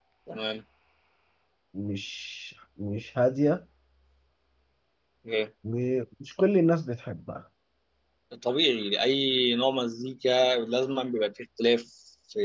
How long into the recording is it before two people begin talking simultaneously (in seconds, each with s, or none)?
none